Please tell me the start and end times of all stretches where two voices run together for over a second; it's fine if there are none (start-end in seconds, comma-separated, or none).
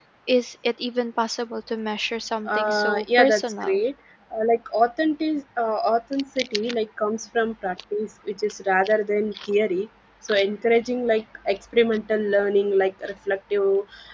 2.5-3.8